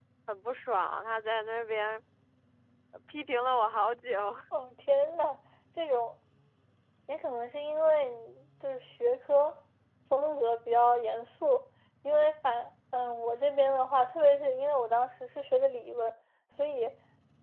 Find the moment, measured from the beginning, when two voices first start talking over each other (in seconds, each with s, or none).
none